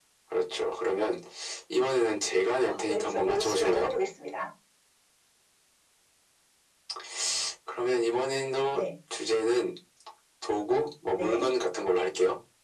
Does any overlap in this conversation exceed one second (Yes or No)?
Yes